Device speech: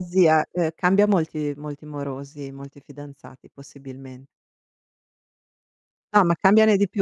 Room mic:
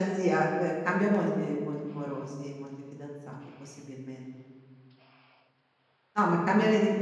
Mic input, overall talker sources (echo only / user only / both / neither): echo only